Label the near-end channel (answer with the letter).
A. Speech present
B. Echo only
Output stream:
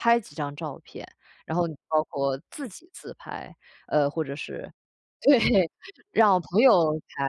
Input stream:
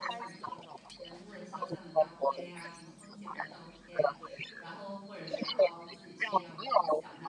A